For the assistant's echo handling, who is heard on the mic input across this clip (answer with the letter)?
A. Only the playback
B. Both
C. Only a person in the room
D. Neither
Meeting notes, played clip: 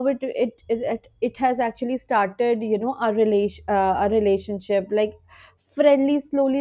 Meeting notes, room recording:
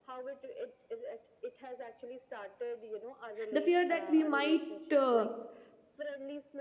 B